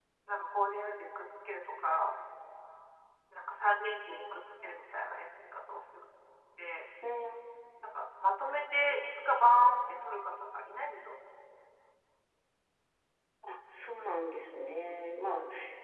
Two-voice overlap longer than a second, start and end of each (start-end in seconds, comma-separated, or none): none